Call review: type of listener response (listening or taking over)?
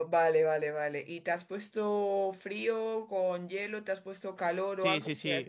taking over